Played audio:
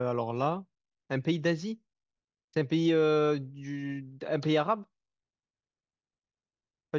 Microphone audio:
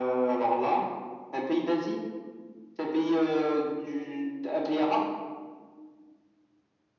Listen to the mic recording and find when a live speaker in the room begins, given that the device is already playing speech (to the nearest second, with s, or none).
none